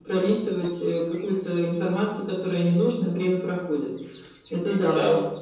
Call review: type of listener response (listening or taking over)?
taking over